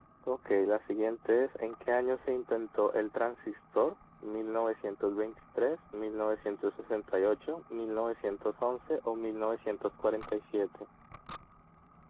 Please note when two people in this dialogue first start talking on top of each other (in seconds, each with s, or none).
none